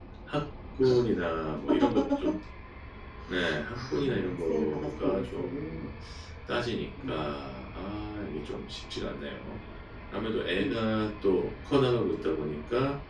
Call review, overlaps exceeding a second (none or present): present